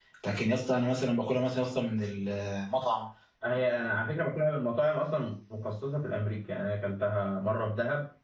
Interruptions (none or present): none